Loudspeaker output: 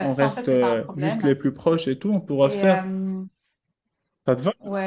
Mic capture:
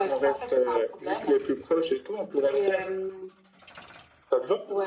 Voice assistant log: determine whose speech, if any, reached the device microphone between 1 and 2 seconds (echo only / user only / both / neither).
echo only